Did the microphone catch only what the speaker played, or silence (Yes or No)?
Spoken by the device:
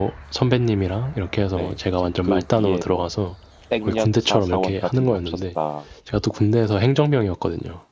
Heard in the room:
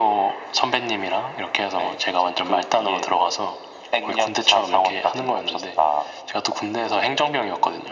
Yes